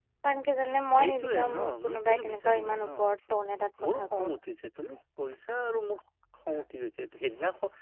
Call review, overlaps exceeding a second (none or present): present